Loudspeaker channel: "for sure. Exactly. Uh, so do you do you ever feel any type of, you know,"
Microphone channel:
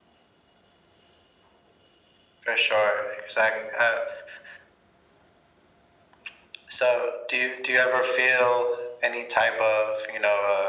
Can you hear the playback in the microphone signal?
Yes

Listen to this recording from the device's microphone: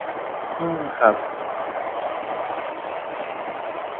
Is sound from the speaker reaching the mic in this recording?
No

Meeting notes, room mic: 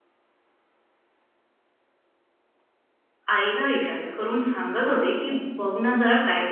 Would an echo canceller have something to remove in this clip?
No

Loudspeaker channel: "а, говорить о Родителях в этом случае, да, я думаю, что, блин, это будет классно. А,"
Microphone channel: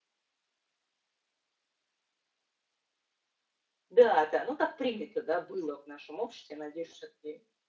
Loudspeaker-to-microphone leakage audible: No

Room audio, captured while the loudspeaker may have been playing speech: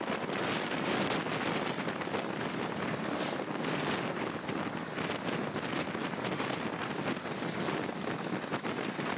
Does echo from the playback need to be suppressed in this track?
No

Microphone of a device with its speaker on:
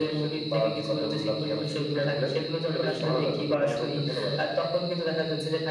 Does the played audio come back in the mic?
Yes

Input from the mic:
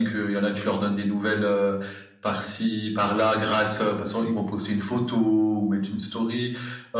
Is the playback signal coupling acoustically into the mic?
Yes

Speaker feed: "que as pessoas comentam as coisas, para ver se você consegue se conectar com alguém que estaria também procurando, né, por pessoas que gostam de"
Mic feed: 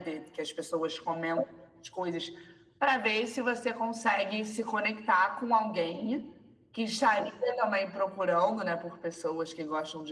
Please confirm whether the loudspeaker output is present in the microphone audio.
Yes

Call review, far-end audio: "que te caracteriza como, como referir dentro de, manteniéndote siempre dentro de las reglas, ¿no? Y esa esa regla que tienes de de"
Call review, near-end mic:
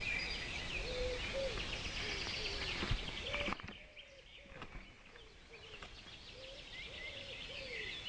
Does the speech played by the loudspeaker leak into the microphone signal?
No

